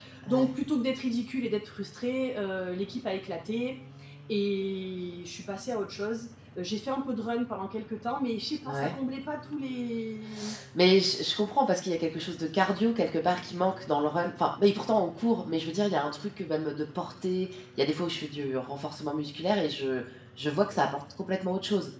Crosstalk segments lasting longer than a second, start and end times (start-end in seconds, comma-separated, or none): none